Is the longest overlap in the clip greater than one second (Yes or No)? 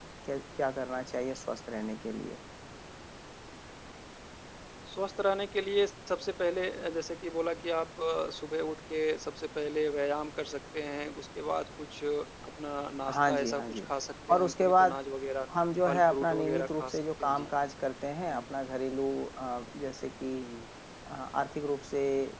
Yes